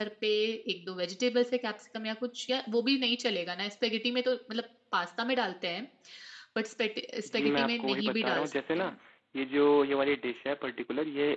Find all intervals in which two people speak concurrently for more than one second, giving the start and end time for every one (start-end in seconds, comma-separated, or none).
7.3-9.0